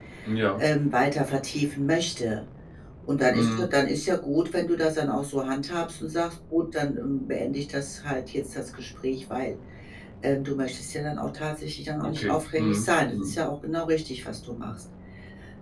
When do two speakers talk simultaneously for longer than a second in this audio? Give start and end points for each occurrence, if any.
12.1-13.3

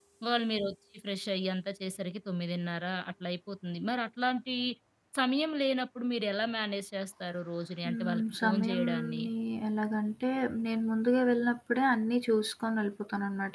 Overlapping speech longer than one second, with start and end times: 7.8-9.2

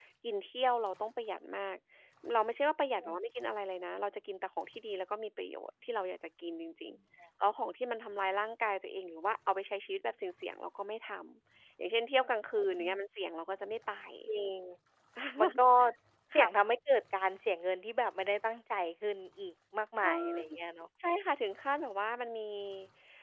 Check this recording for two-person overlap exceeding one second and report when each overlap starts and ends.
none

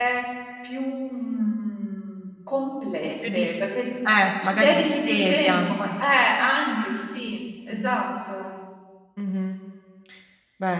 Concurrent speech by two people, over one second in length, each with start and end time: 4.5-5.7

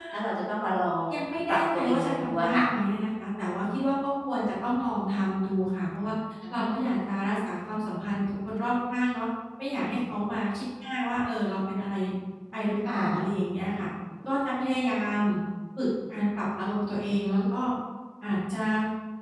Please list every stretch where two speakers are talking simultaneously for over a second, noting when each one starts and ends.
1.5-2.7

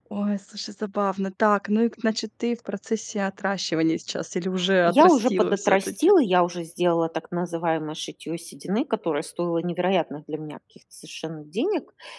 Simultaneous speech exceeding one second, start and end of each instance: 4.8-6.1

